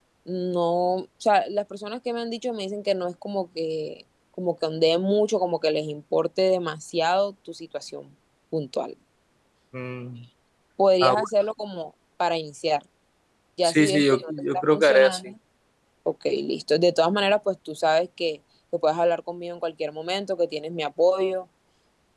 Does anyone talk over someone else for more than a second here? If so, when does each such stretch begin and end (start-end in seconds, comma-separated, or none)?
13.6-15.3